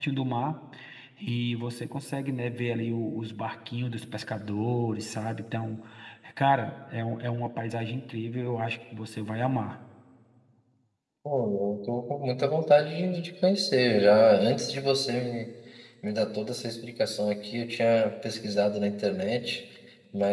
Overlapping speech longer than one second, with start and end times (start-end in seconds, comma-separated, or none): none